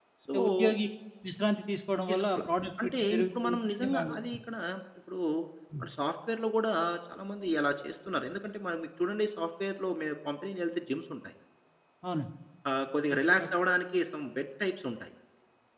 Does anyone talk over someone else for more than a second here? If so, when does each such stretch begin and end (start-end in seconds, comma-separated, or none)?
2.8-4.2